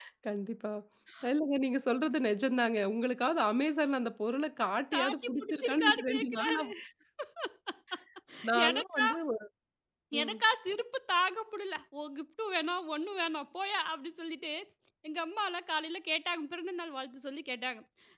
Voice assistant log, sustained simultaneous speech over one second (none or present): present